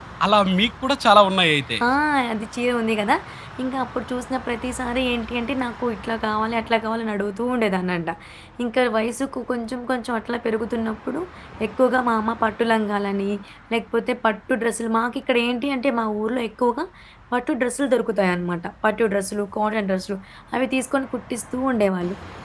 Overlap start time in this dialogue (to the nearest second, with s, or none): none